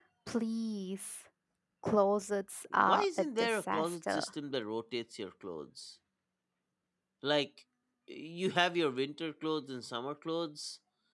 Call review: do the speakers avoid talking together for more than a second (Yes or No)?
No